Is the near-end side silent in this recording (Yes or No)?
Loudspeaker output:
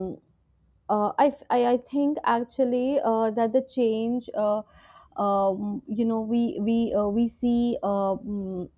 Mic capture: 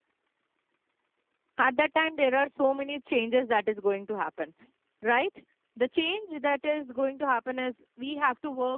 No